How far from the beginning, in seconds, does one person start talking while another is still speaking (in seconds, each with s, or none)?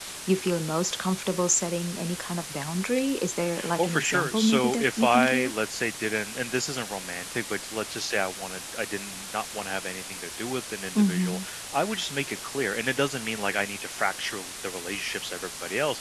3.8 s